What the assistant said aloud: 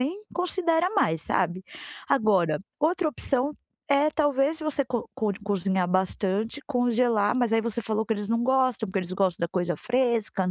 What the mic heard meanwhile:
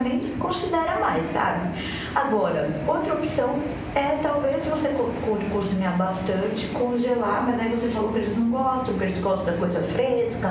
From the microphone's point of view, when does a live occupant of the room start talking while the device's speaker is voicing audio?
none

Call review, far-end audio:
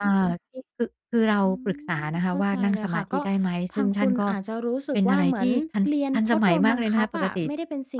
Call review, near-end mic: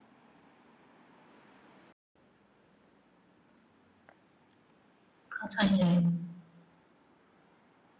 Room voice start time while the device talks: 5.3 s

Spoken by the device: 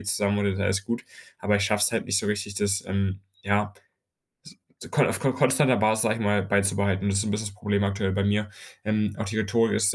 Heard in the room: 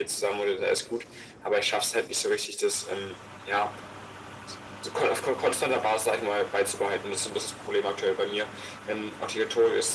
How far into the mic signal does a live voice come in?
none

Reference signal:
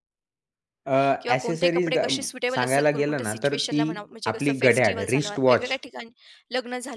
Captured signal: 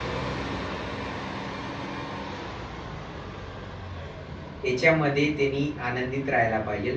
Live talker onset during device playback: 4.6 s

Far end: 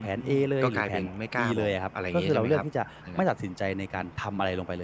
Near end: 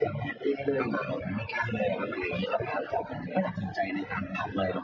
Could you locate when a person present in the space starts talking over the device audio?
none

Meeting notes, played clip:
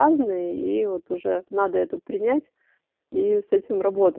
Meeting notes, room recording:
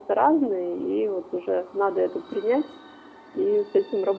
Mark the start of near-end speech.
none

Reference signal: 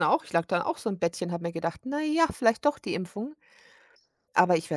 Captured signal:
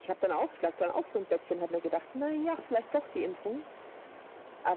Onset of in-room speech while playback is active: none

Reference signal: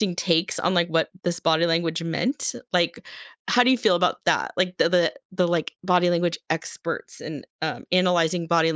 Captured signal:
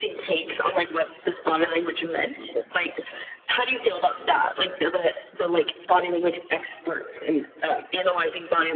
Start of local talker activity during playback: none

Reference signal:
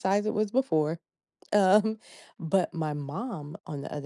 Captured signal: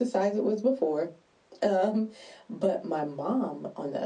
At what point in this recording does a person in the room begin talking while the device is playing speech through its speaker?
none

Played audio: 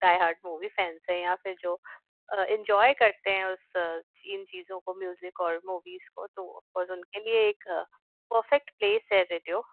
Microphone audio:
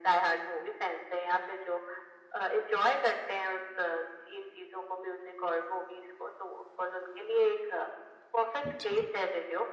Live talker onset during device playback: 8.6 s

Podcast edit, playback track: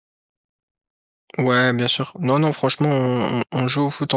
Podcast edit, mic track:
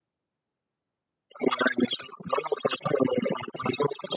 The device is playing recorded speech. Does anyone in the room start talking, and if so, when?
none

